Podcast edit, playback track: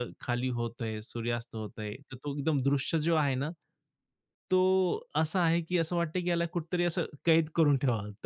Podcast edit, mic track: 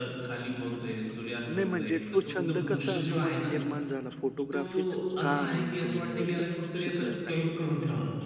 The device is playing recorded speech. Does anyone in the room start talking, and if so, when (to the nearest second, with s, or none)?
1 s